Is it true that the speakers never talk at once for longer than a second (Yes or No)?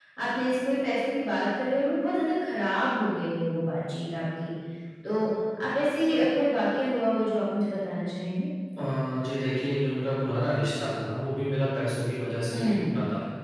Yes